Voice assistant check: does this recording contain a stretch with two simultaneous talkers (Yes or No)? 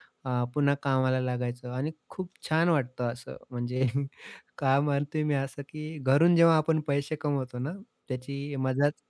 No